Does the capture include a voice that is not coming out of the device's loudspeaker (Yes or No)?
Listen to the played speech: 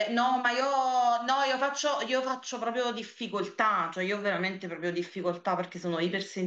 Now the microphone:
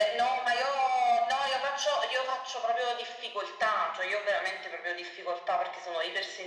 No